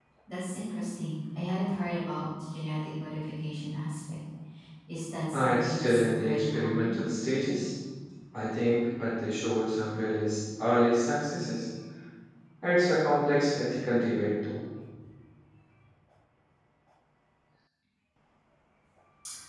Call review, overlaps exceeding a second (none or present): present